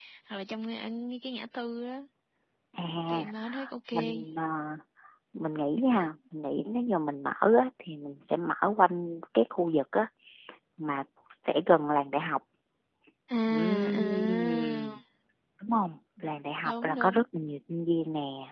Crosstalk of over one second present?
Yes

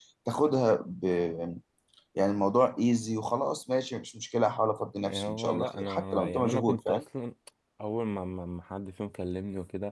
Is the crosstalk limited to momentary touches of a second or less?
No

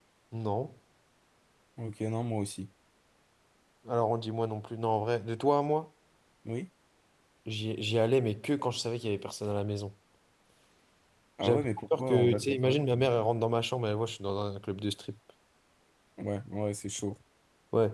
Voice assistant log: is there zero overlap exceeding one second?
No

